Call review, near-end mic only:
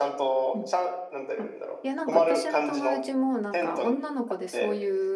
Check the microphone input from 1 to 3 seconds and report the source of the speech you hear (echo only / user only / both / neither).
both